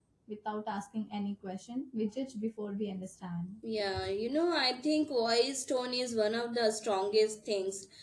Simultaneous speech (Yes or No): No